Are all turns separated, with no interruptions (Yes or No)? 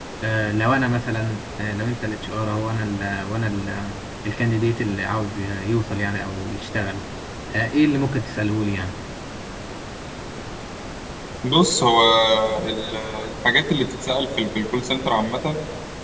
Yes